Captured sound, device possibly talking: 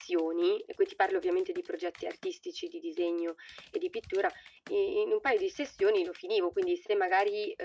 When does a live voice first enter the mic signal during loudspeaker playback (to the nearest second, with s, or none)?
none